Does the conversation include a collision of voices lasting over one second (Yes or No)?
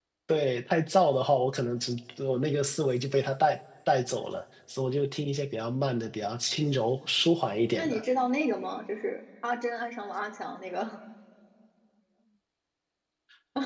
No